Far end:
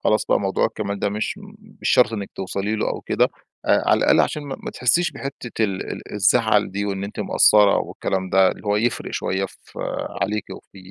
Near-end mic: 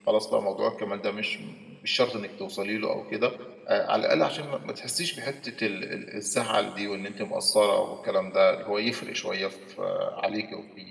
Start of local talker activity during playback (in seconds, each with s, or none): none